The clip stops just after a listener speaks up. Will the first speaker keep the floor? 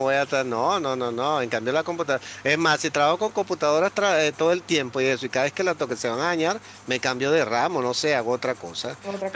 Yes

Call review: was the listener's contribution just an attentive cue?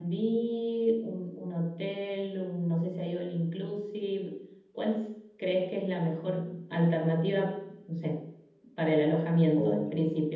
No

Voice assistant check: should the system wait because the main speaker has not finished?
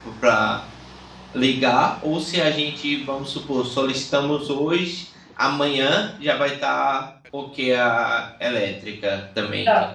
No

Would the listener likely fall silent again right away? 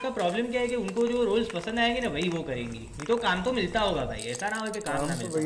No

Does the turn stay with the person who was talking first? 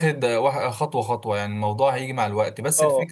Yes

